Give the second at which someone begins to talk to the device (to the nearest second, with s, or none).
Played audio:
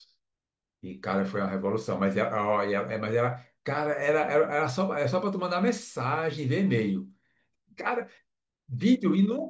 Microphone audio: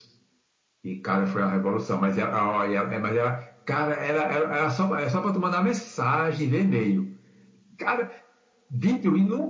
none